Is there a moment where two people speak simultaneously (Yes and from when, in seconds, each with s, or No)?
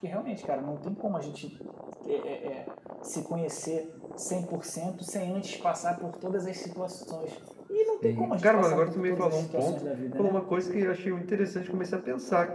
Yes, from 8.0 s